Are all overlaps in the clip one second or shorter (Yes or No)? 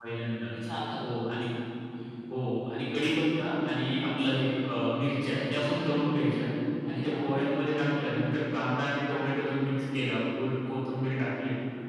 Yes